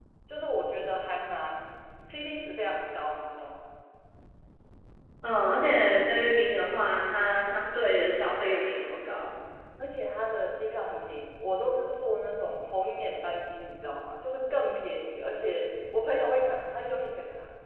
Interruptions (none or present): none